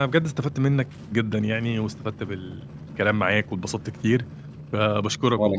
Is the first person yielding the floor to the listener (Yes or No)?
No